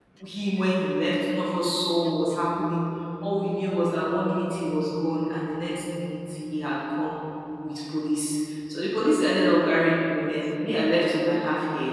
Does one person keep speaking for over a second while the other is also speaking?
No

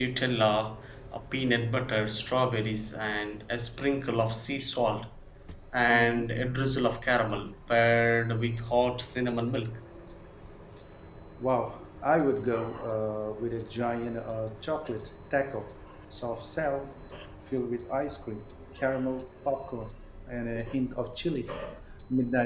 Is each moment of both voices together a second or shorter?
Yes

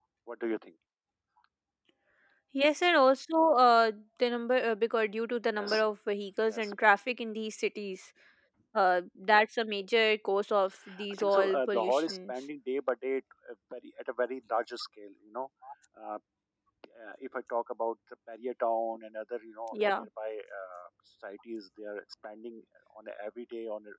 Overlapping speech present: Yes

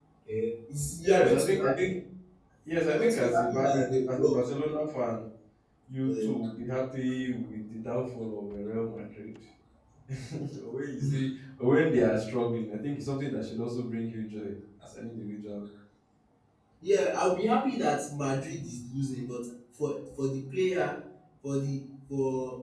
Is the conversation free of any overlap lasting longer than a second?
No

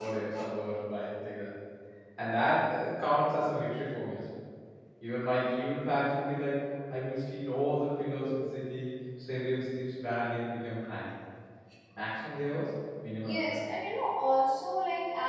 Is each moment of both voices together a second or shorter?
Yes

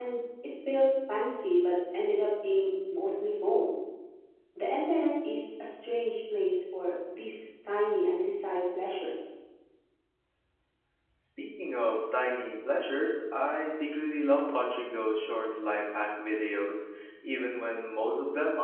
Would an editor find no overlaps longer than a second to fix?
Yes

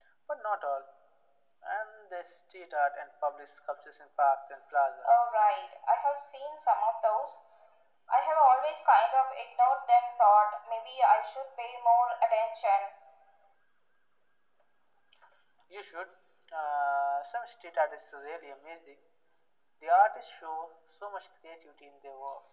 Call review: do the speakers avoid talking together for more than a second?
Yes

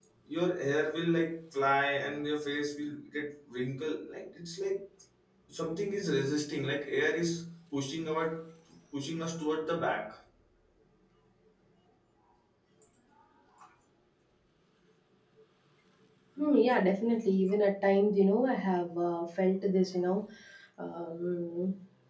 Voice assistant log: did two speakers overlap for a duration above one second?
No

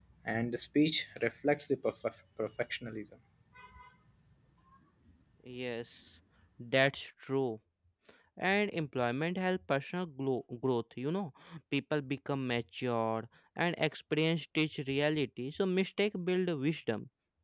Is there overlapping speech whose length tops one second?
No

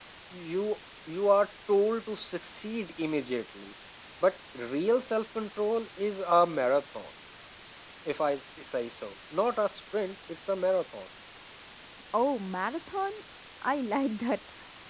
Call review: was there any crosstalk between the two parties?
No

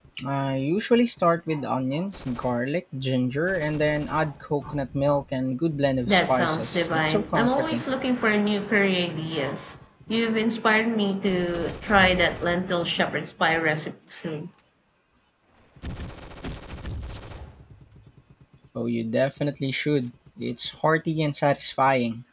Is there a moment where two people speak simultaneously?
Yes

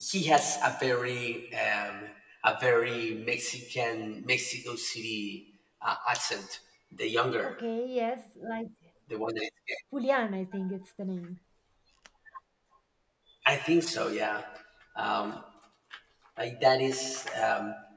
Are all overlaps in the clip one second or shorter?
Yes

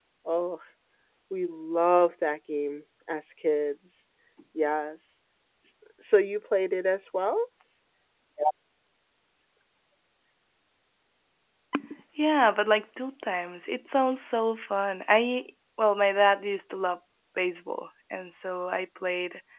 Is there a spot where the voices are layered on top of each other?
No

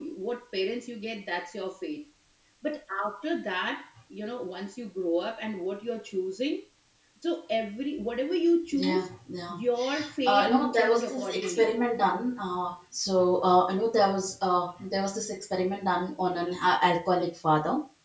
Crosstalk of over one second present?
Yes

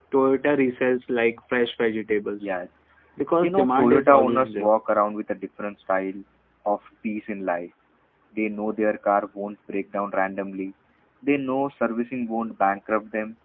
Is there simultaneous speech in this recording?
Yes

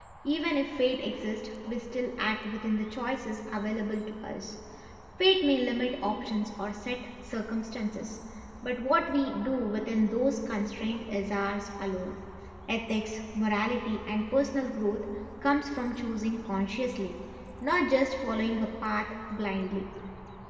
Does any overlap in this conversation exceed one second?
No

